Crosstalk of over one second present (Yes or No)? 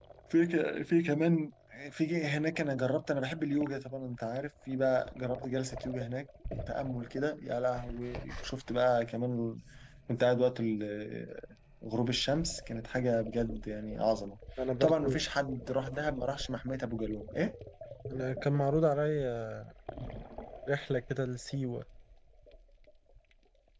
No